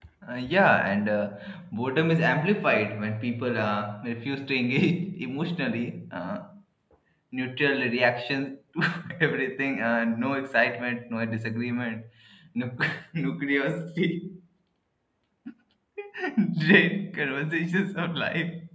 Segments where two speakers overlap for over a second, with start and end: none

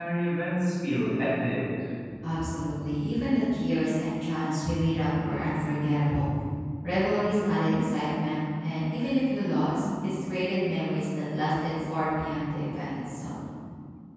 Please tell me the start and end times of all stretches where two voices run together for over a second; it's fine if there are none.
none

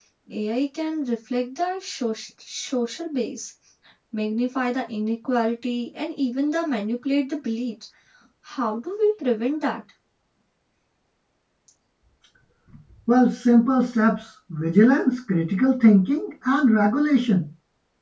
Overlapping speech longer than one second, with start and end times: none

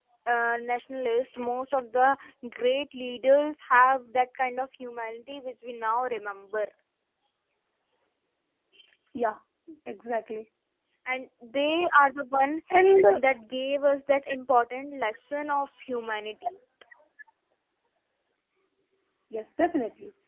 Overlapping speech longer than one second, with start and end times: none

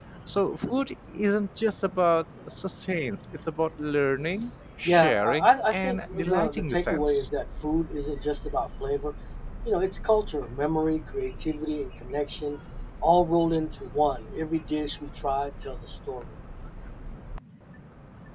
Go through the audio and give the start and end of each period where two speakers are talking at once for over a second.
4.8-7.3

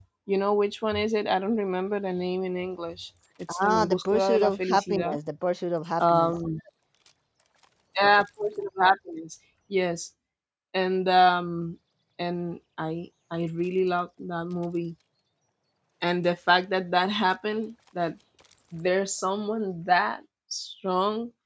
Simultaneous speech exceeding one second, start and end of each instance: 3.5-5.2

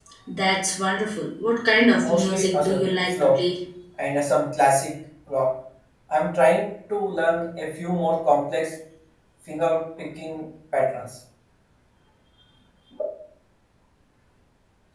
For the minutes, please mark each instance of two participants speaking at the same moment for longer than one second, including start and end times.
2.0-3.4

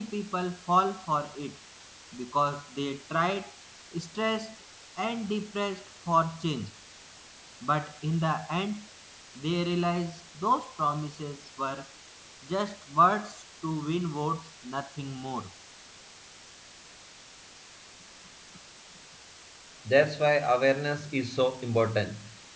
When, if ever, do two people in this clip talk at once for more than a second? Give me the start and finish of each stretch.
none

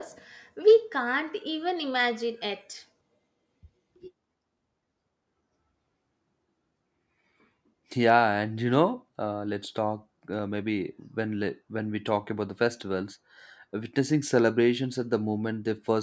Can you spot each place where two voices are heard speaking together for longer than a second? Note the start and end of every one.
none

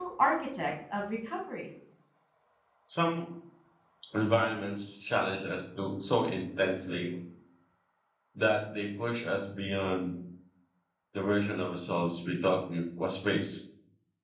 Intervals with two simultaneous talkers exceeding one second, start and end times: none

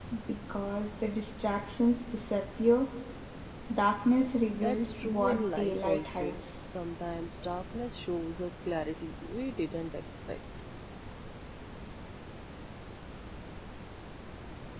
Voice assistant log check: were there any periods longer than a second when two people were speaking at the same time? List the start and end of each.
4.6-6.3

